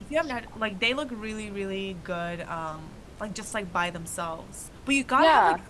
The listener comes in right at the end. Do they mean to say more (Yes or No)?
No